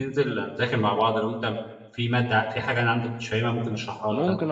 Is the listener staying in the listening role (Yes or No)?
No